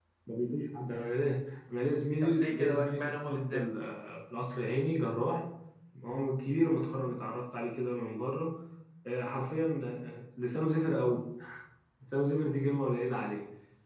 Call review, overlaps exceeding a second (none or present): present